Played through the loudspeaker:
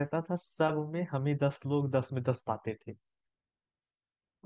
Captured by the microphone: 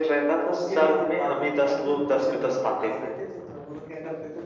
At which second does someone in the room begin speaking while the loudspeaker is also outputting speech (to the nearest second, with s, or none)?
1 s